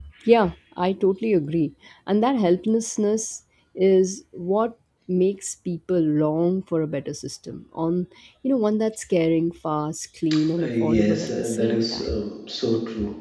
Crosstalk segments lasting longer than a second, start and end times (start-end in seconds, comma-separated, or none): 10.6-12.2